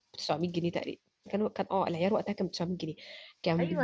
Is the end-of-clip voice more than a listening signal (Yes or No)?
Yes